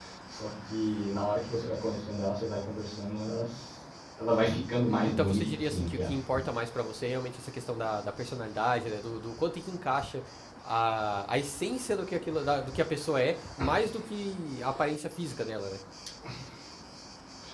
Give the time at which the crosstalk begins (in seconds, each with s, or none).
4.9 s